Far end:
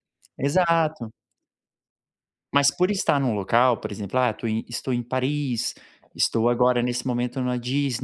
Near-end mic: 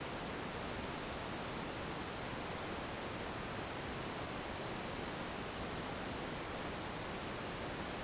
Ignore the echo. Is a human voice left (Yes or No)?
No